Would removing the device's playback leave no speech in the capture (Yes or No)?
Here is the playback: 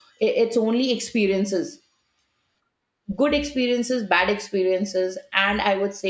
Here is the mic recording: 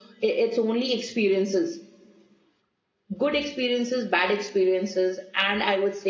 Yes